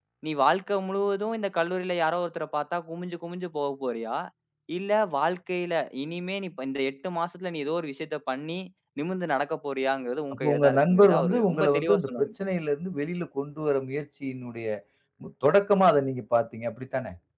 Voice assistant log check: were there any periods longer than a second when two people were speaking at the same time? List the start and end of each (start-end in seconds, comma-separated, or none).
10.3-12.3